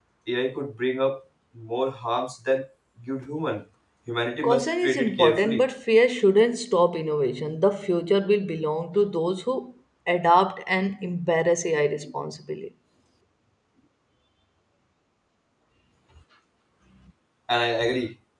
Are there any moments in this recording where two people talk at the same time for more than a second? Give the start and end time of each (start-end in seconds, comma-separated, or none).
4.4-5.6